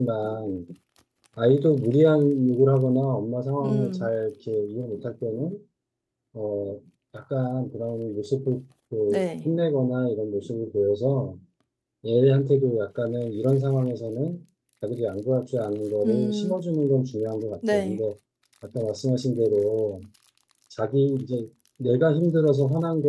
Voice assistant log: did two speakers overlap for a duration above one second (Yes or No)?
No